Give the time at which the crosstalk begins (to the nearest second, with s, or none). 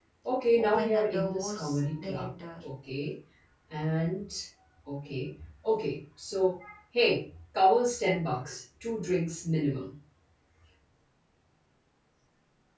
1 s